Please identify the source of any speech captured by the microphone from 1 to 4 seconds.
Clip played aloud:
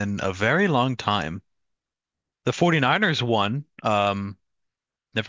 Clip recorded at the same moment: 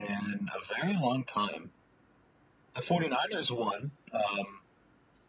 echo only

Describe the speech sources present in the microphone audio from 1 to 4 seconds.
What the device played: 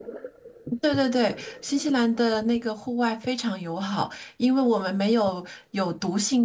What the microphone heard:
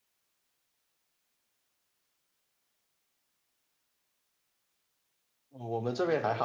neither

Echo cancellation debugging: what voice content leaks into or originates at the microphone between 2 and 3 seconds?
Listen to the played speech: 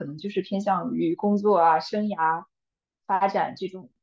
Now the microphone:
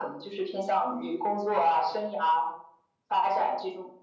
echo only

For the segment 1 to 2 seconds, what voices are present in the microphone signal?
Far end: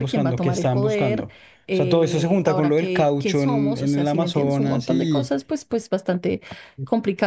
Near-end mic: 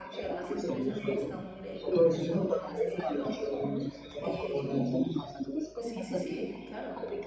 both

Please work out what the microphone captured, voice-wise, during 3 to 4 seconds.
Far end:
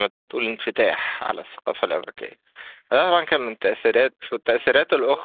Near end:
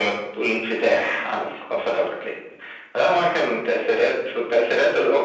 echo only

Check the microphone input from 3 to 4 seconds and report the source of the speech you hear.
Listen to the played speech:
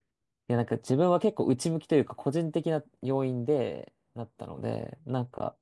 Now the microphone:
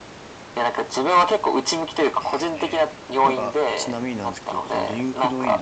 both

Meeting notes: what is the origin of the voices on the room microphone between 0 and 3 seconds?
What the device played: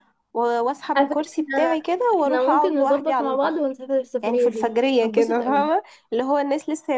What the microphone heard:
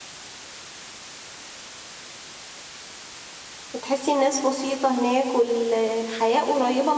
neither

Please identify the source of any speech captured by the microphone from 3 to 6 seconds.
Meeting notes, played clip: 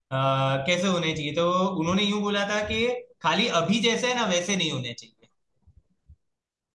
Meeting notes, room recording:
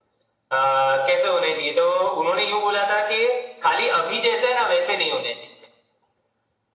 echo only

